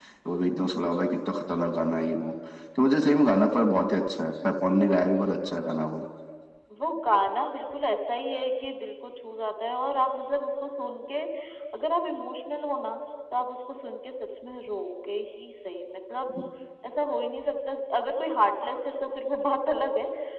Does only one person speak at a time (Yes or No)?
Yes